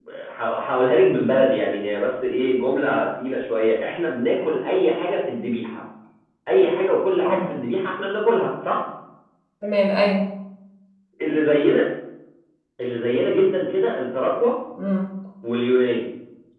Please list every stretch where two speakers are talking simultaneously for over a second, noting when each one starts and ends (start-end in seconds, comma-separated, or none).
none